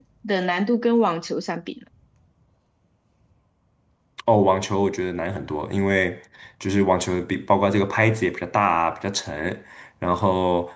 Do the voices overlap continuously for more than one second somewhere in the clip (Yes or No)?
No